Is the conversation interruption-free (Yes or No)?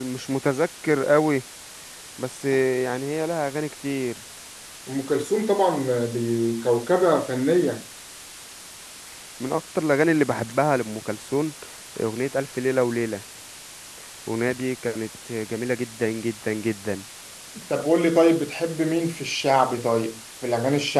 Yes